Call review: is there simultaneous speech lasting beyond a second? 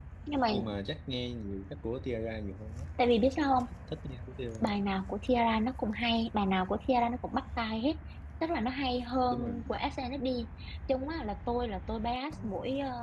No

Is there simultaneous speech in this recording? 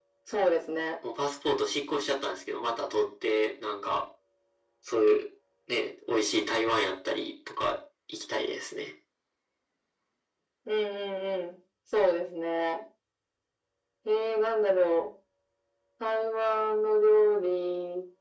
No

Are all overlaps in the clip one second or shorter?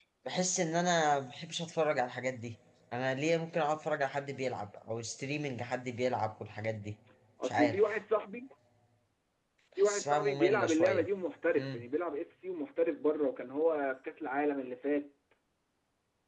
No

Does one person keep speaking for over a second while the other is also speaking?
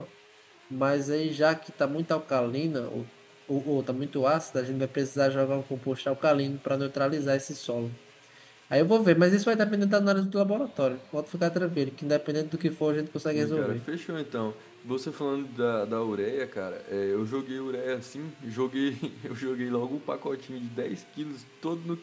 No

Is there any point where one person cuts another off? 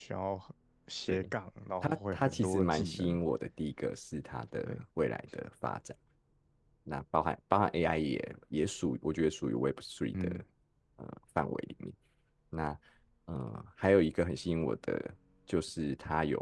Yes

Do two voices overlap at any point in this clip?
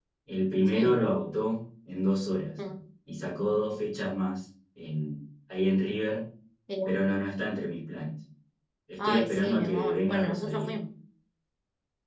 Yes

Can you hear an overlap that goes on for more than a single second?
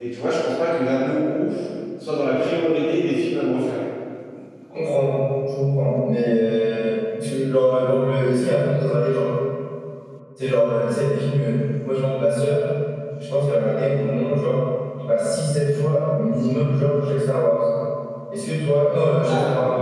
No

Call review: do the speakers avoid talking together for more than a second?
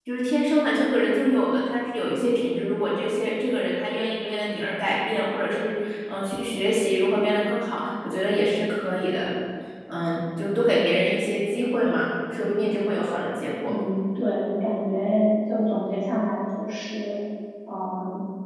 Yes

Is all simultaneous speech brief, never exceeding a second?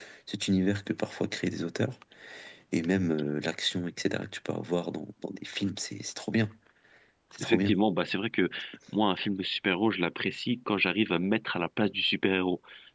Yes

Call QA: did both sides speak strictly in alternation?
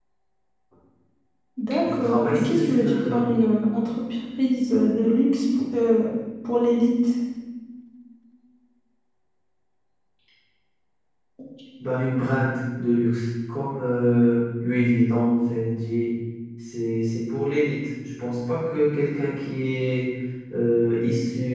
No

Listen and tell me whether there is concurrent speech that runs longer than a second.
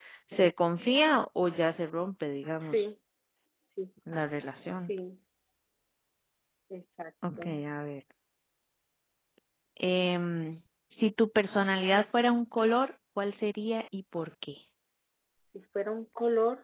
No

